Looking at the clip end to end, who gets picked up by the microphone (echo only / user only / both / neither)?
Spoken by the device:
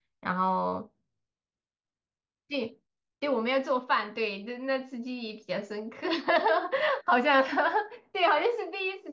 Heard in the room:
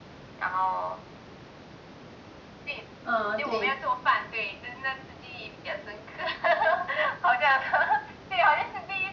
both